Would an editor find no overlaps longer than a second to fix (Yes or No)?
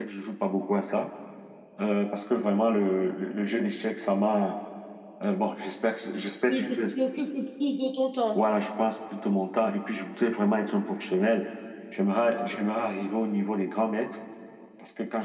Yes